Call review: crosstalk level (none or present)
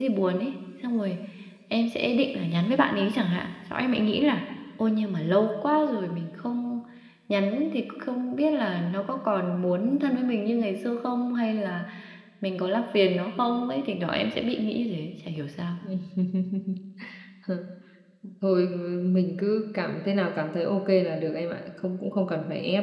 none